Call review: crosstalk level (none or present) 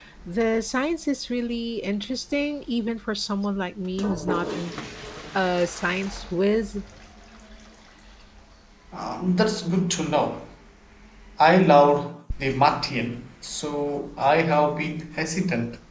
none